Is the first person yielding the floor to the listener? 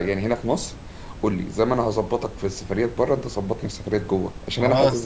No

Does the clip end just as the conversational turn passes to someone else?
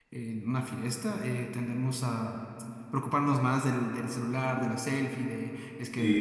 No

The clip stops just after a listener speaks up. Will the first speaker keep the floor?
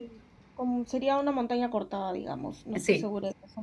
Yes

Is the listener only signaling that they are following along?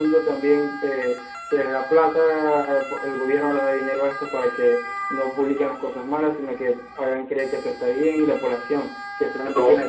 No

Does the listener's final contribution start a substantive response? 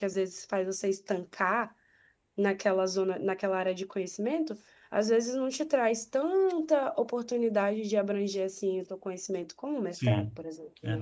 Yes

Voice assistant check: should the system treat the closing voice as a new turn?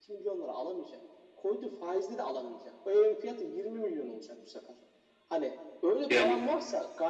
No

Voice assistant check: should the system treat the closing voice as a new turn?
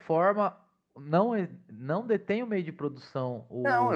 Yes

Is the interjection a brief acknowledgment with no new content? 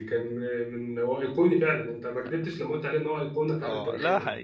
No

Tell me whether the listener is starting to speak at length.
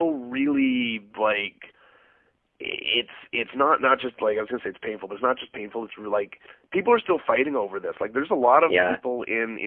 No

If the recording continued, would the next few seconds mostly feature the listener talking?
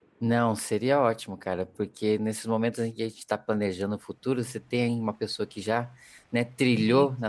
No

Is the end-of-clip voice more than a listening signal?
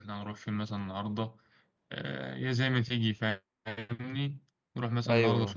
No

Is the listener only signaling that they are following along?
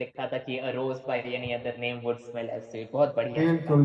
No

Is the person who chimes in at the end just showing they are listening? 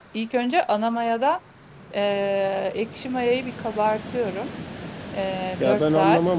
No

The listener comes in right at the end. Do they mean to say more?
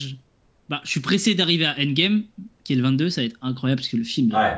Yes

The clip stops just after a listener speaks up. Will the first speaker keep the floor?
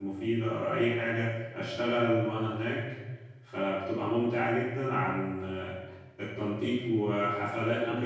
Yes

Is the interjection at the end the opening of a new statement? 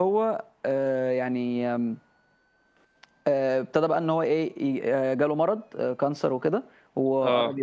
No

